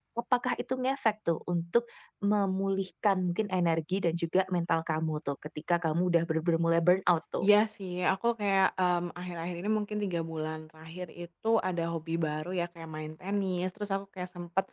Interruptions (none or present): none